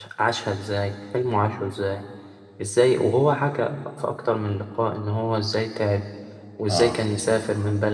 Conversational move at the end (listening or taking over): listening